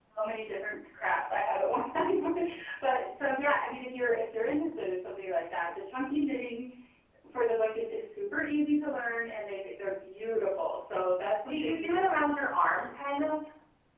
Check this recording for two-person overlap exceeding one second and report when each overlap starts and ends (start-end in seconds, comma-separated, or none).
none